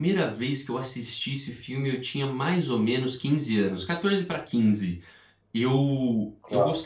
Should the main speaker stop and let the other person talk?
No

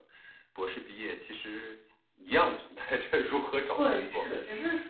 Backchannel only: No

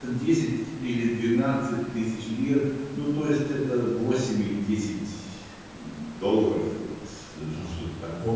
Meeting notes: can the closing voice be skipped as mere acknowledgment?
No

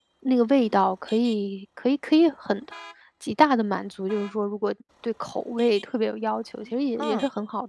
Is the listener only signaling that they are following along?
Yes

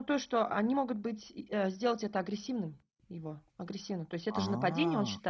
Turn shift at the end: No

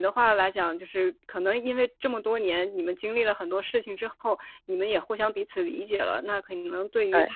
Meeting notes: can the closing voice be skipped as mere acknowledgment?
Yes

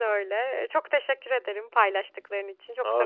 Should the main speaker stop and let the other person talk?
Yes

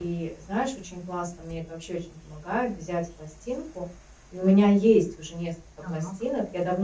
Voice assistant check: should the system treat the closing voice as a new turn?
No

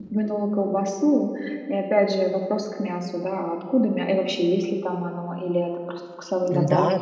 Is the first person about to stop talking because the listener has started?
Yes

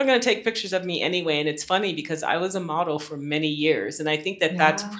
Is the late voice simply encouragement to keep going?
Yes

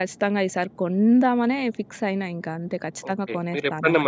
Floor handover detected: Yes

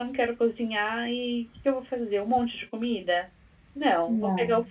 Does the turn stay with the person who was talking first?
Yes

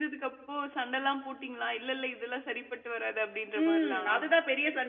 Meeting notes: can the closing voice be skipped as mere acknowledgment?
No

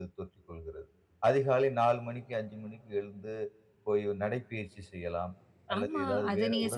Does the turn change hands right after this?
Yes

